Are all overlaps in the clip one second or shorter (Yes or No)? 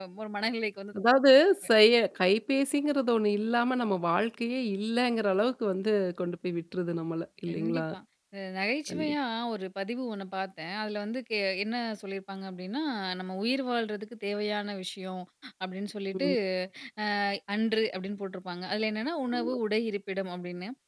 Yes